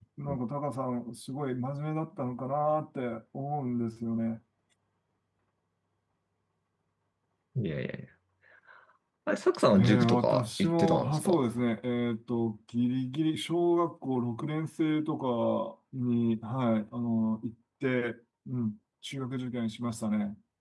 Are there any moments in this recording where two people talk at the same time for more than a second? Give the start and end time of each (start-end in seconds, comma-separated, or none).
9.8-11.4